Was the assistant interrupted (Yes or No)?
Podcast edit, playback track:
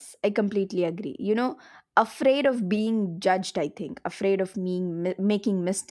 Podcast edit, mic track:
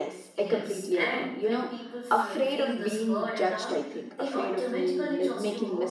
Yes